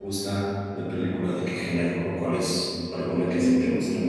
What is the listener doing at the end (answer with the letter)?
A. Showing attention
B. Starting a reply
B